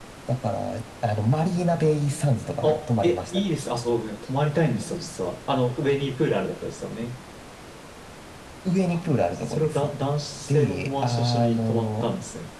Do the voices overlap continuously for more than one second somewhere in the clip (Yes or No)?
Yes